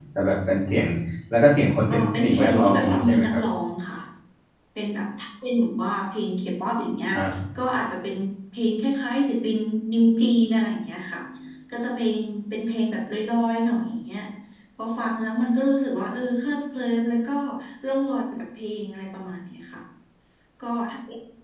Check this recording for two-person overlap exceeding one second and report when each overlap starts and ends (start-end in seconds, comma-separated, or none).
1.9-3.4